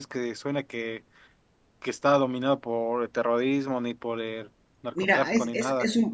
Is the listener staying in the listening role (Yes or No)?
No